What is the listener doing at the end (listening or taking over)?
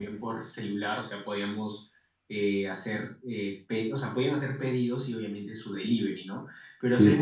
listening